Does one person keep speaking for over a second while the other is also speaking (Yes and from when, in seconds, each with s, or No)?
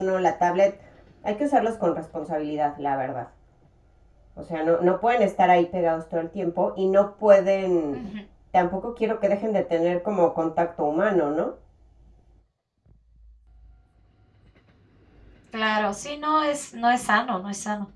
No